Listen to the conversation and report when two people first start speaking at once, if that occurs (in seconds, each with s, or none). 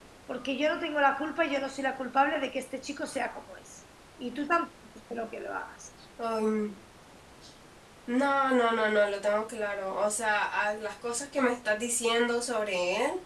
none